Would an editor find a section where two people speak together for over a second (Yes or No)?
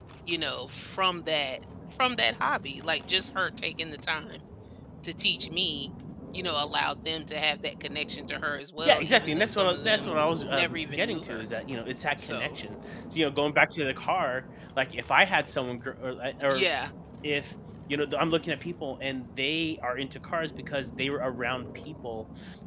Yes